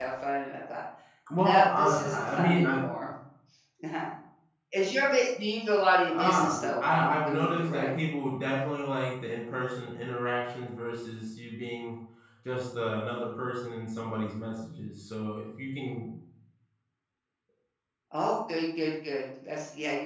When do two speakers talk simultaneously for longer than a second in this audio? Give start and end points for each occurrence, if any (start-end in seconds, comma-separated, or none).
1.3-2.9, 6.1-7.9